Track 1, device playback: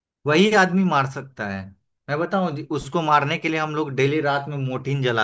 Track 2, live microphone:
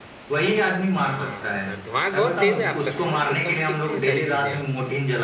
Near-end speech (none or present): present